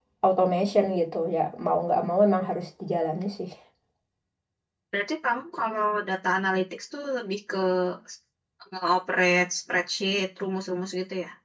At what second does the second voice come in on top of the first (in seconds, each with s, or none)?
none